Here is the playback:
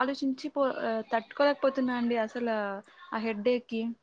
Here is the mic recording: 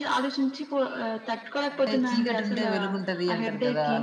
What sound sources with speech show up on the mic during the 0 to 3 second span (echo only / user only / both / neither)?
both